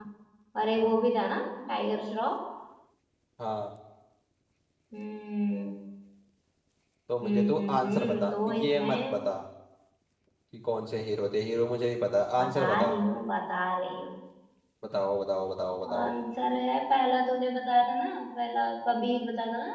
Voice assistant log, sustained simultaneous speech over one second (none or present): present